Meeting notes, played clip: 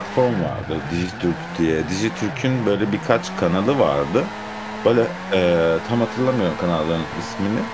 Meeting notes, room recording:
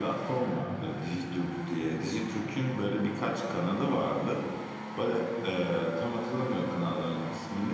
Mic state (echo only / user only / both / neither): echo only